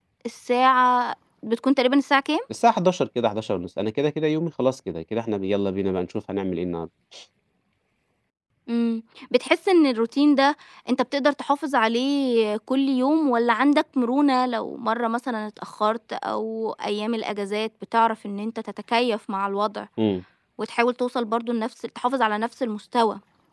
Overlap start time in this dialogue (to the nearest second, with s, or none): none